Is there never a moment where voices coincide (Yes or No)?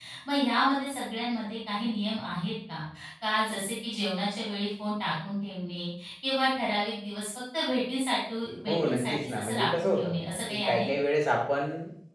No